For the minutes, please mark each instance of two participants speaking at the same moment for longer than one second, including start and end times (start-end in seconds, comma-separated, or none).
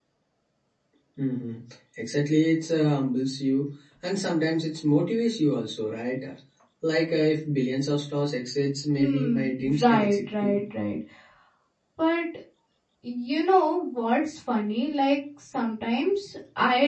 9.0-10.6